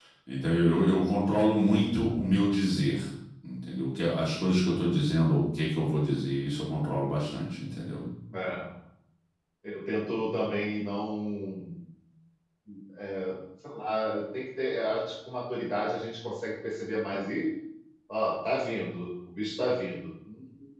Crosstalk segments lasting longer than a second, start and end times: none

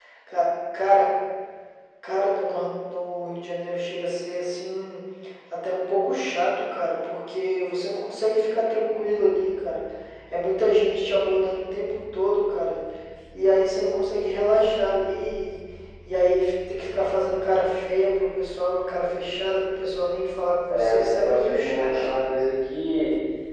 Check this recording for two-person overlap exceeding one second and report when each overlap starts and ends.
20.7-21.9

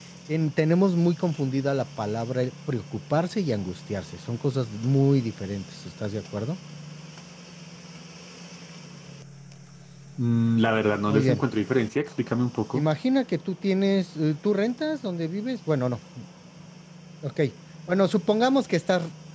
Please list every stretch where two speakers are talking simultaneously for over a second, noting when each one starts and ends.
none

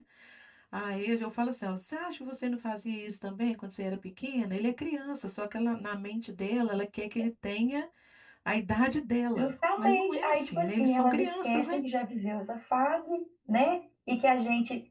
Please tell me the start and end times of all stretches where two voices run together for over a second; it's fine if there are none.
9.4-11.8

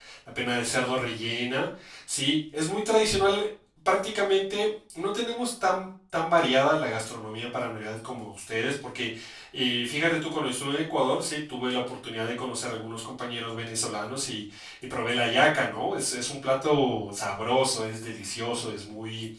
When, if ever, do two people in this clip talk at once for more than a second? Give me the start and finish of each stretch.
none

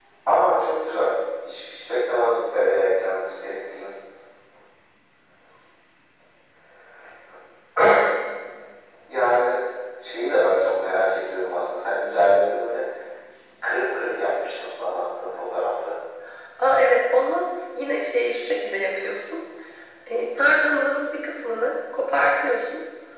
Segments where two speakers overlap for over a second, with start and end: none

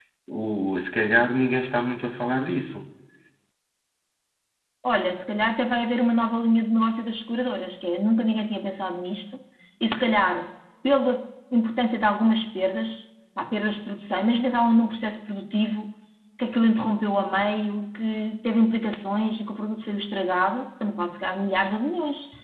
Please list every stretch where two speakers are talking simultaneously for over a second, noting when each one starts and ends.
none

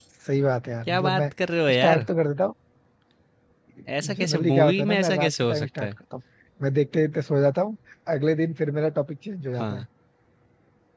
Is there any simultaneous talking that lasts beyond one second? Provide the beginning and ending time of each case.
4.2-5.9

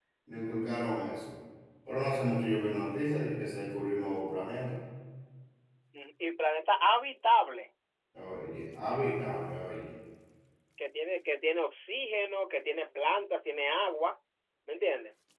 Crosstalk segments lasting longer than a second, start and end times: none

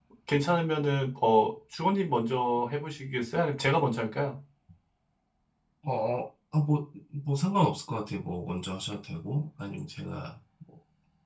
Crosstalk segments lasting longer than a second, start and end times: none

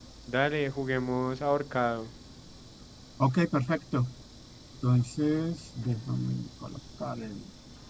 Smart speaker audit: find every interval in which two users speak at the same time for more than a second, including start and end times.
none

